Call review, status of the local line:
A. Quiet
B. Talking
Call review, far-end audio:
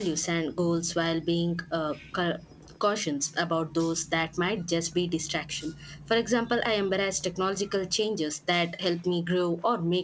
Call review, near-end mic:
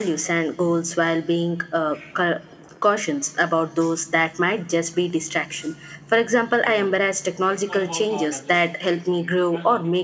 B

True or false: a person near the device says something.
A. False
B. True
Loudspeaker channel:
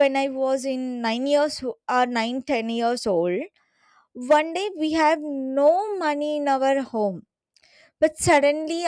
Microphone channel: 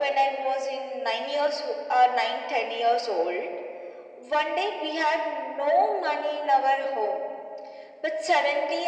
A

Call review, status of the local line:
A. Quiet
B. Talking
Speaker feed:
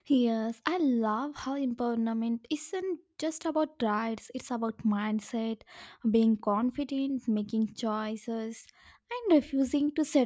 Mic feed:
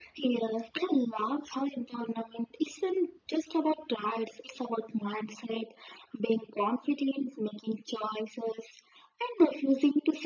A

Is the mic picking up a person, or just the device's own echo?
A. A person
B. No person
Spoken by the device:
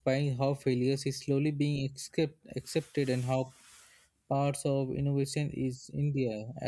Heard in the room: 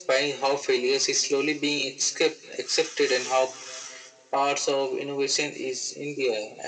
B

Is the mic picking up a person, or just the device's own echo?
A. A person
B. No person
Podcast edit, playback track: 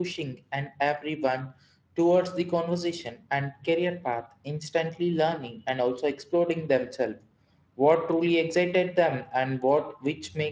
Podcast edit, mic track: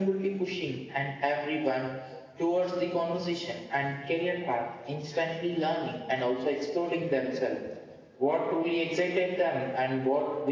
B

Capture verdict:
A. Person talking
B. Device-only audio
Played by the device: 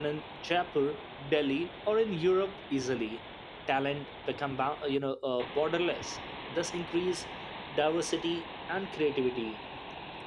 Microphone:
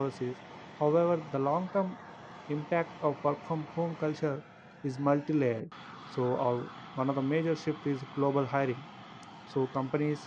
A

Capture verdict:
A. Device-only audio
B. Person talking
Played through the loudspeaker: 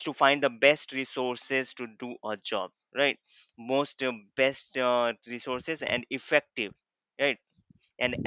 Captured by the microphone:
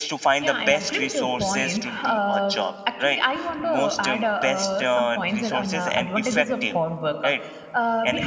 B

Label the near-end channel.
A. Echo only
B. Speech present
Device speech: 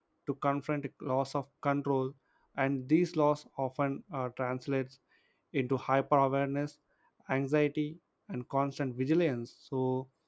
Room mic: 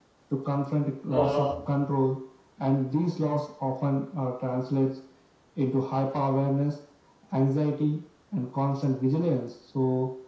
B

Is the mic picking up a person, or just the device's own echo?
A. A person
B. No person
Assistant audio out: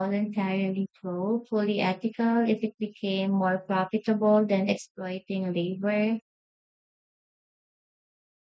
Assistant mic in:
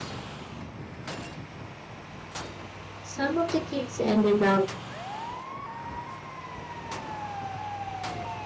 A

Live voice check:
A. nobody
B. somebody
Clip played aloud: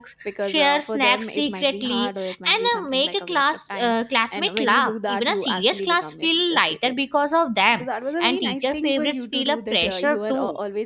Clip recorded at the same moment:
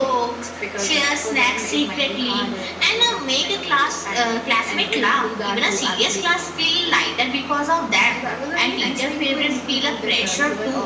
A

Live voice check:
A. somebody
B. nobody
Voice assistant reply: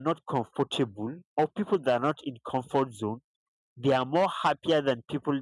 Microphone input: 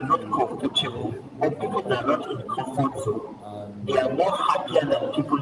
A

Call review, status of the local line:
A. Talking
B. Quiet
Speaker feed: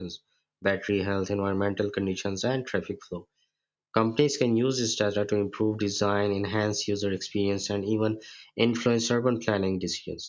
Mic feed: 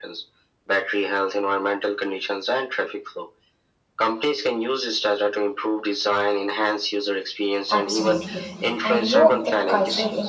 A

